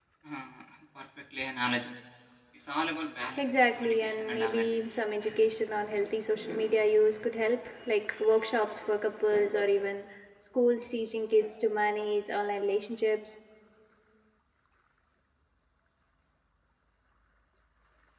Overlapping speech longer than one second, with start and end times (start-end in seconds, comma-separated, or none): 3.4-5.1